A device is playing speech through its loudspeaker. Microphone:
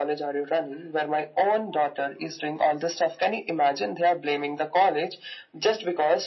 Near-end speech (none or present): none